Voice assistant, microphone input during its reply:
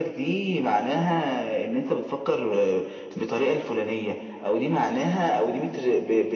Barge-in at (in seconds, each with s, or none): none